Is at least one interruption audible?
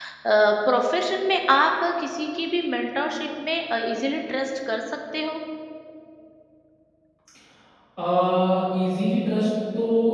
No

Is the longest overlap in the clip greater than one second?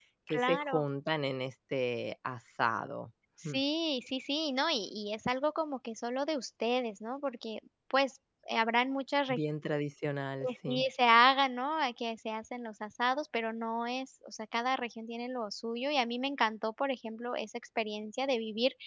No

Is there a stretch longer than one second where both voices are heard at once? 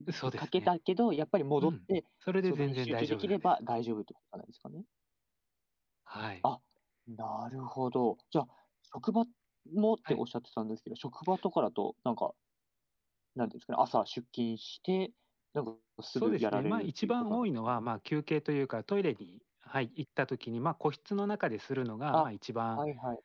Yes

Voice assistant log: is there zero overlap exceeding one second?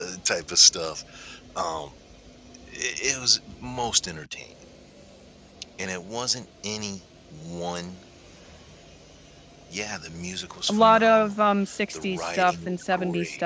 No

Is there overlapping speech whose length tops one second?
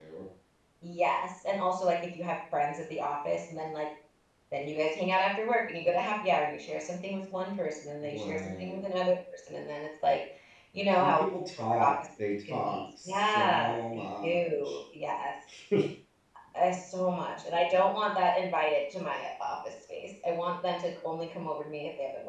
Yes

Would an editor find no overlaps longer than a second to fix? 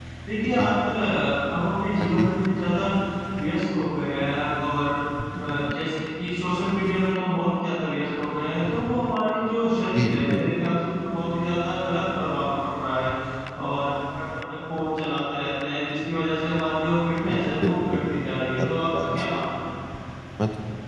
No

